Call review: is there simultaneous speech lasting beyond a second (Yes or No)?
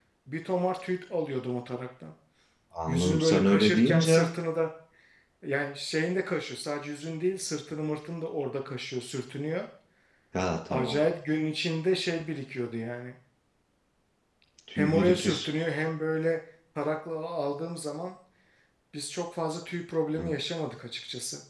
Yes